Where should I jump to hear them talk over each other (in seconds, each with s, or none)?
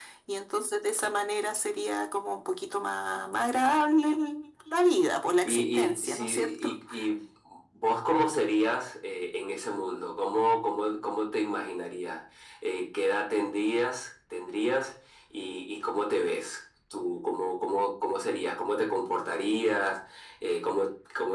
5.4 s